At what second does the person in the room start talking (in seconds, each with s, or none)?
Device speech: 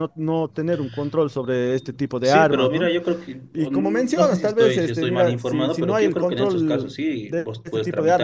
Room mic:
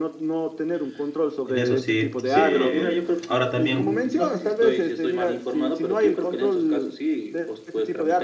1.5 s